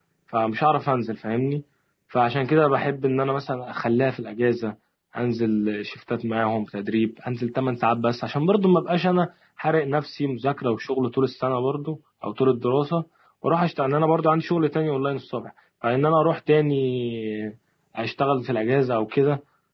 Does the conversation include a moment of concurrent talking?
No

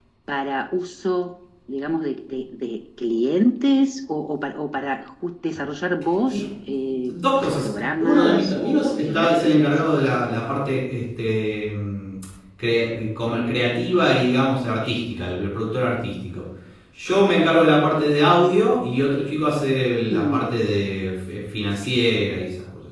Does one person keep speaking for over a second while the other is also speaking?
Yes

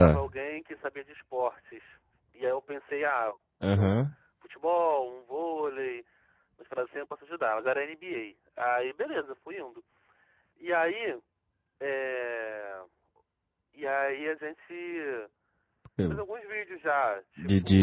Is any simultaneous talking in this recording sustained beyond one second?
No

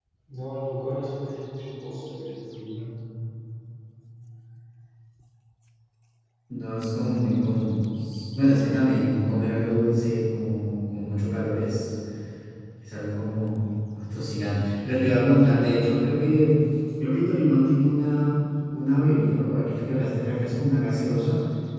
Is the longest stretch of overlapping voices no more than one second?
Yes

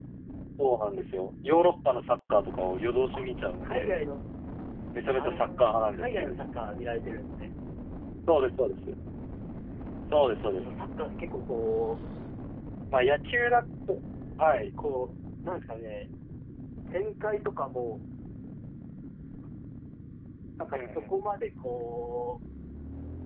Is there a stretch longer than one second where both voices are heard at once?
Yes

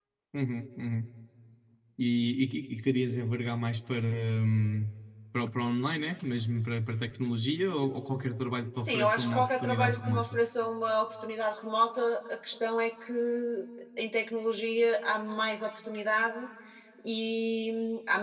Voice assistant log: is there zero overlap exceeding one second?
No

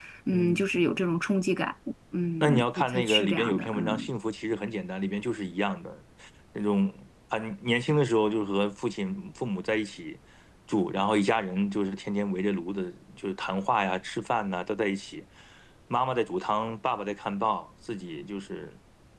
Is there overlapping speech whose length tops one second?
Yes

